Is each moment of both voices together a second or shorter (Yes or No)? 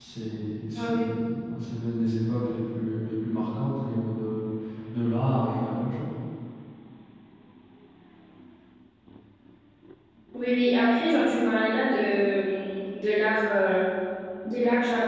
Yes